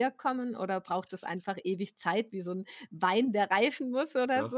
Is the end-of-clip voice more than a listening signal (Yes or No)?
Yes